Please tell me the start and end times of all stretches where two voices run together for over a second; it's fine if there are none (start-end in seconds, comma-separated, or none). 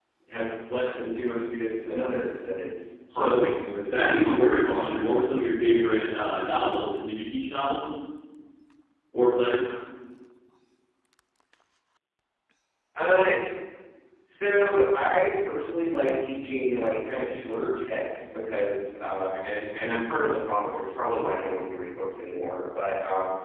3.1-4.9